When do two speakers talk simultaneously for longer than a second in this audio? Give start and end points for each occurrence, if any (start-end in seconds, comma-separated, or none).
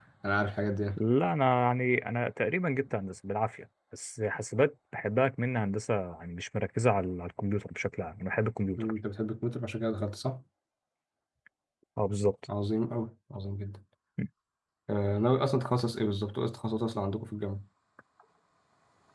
none